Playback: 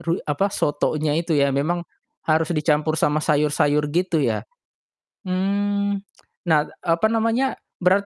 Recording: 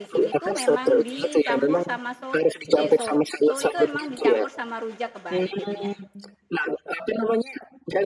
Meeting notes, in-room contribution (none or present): present